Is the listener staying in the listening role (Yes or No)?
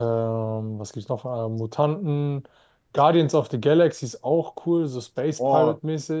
No